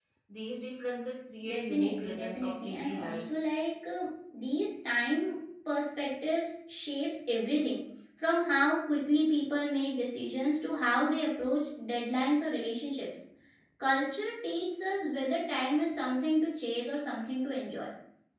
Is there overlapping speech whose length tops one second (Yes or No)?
Yes